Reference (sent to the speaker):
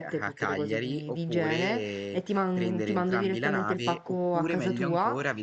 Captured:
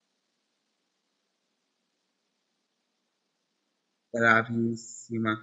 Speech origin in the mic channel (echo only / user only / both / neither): user only